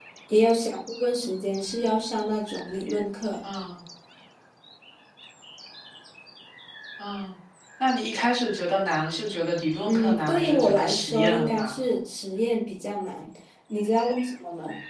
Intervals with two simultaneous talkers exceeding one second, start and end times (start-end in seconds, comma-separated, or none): 9.8-11.8